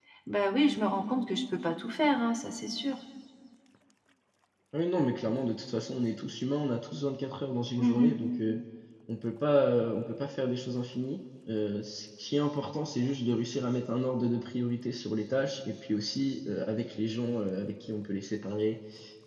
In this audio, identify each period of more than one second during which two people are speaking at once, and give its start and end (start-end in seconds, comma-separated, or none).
none